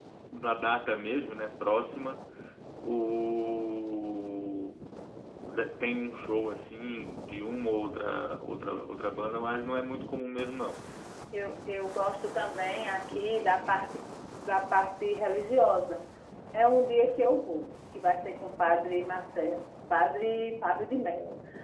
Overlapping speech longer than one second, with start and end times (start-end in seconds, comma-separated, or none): 12.6-13.8